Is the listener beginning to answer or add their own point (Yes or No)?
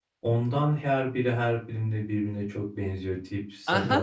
Yes